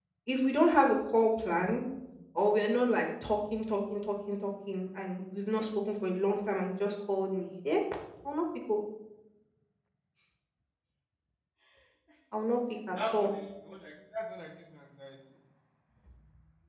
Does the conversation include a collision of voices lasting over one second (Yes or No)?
No